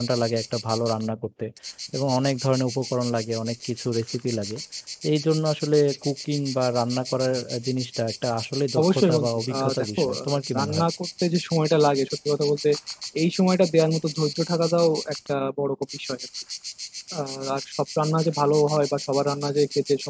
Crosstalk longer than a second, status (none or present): present